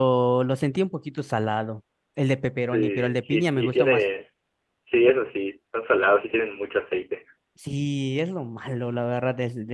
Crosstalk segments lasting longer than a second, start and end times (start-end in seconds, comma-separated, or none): 2.7-4.0